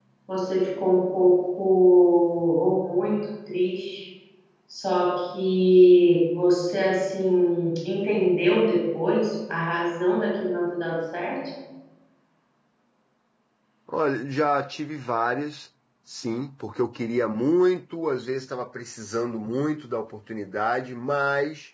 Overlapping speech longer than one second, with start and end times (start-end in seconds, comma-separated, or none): none